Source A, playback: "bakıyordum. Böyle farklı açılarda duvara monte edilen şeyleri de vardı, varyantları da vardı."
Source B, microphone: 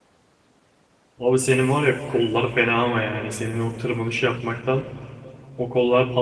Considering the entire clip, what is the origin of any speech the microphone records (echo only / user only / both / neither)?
user only